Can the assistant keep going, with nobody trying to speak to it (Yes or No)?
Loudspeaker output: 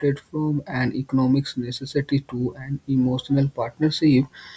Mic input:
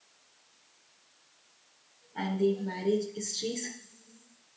No